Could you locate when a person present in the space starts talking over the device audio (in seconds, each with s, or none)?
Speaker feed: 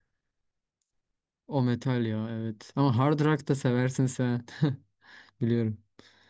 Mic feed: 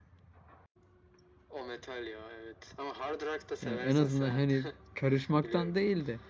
3.6 s